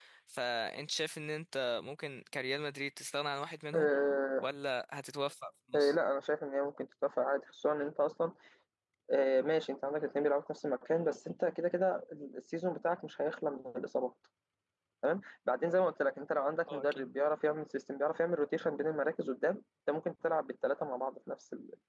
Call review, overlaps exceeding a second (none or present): none